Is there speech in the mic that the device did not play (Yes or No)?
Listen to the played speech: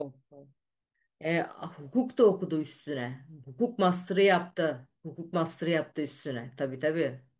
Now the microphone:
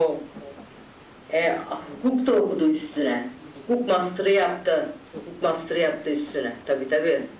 No